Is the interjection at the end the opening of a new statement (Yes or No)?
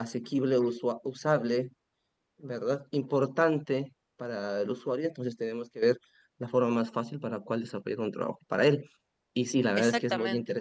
No